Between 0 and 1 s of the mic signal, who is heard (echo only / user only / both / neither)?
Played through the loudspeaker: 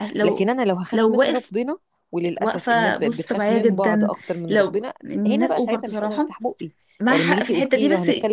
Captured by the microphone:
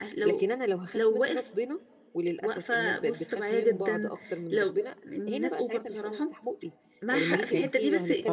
echo only